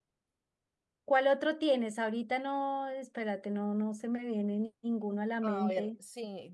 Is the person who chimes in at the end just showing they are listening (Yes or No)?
No